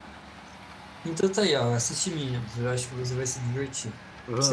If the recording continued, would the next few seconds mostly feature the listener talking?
Yes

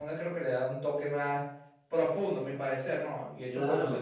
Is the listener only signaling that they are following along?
No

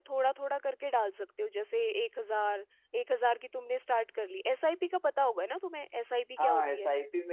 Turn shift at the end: Yes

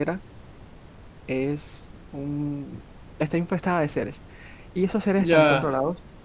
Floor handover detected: No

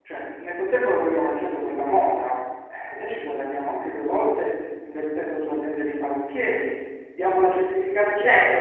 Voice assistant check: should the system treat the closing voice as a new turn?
Yes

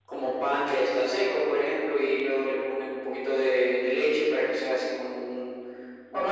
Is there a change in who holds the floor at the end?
Yes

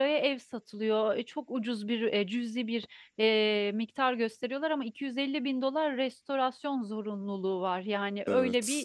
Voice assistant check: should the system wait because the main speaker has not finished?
Yes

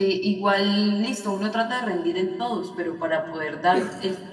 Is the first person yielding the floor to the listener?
No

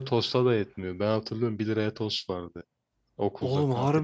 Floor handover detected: Yes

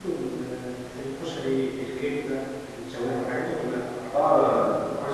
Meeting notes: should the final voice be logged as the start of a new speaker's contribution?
Yes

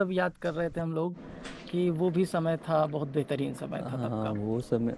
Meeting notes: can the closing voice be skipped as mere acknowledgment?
No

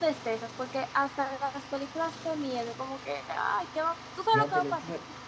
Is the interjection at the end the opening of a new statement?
Yes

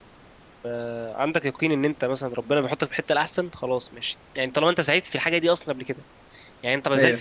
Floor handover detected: No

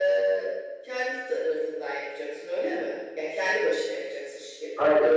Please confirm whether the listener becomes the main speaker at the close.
Yes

